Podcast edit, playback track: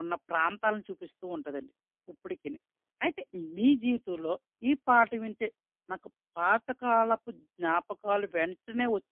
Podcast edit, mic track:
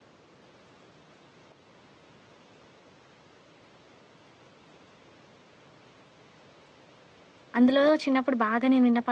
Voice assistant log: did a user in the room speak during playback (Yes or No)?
Yes